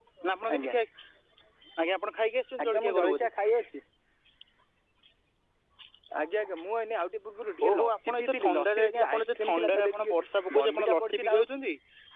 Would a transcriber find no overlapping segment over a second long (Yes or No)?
No